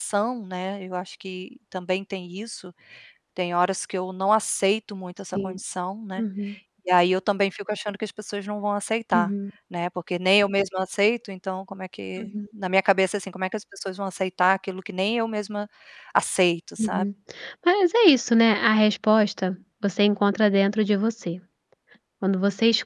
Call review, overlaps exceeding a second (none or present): none